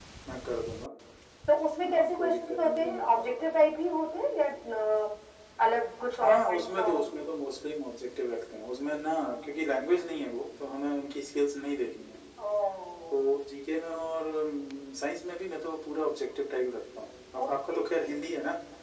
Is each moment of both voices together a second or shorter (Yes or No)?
No